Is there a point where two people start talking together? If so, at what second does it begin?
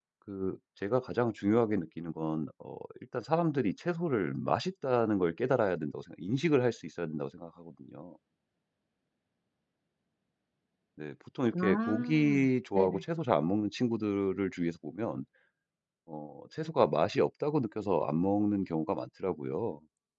11.5 s

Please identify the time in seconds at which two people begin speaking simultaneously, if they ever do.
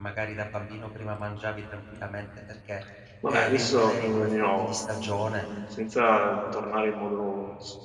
3.3 s

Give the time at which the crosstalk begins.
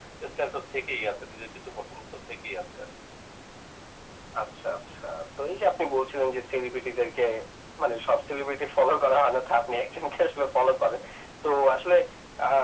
none

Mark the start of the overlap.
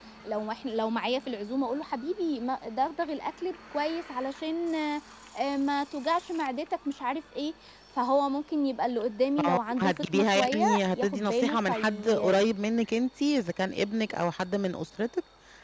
9.4 s

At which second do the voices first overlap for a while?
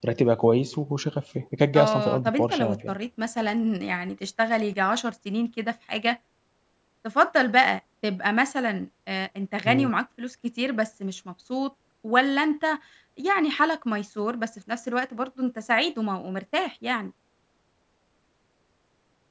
1.8 s

